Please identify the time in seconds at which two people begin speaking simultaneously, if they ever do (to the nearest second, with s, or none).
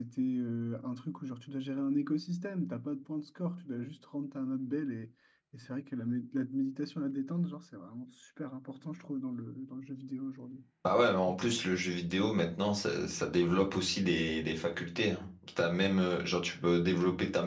none